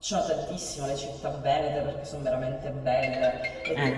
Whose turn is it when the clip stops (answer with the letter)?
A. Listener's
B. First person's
B